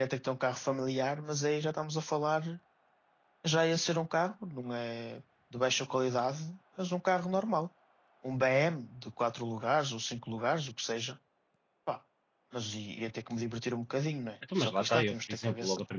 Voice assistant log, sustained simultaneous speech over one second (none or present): present